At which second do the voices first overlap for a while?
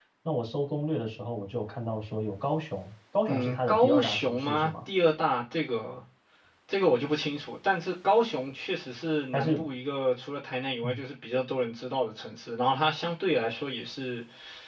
3.3 s

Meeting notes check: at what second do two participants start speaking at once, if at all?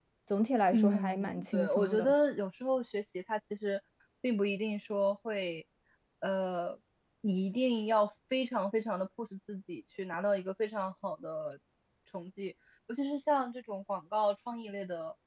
0.7 s

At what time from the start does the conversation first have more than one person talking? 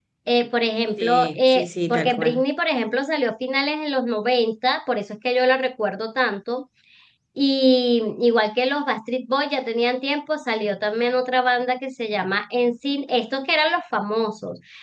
1.0 s

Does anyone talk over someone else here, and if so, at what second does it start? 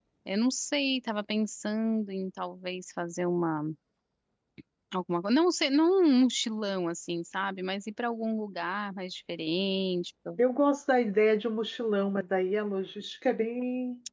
none

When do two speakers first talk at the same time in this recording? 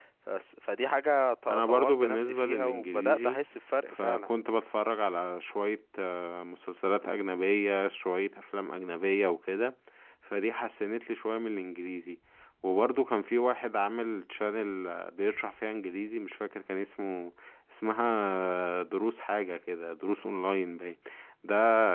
1.5 s

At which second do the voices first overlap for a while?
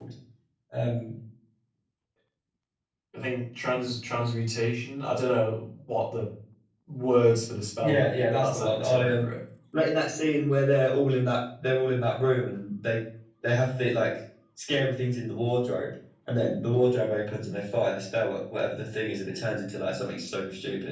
7.8 s

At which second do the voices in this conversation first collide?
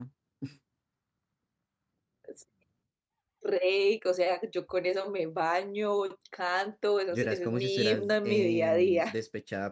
7.1 s

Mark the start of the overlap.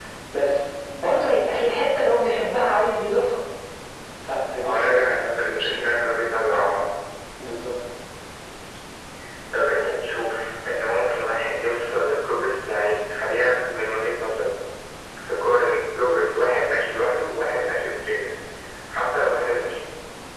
4.6 s

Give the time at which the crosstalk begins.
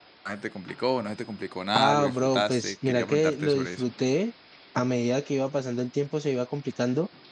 1.7 s

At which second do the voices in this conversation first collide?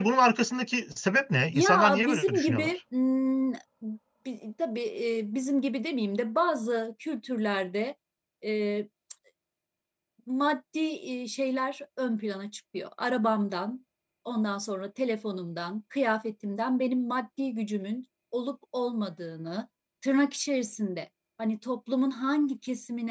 1.5 s

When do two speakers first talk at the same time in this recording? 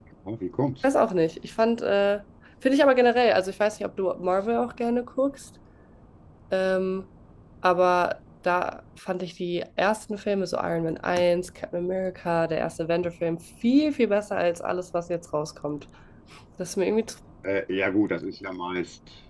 none

